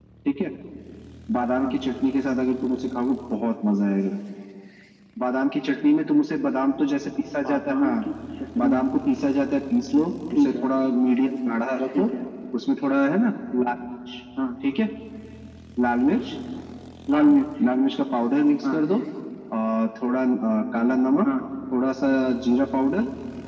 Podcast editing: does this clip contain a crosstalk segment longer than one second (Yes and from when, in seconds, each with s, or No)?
No